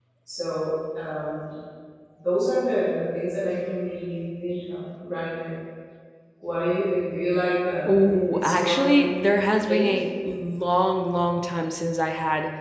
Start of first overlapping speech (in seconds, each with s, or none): 7.8 s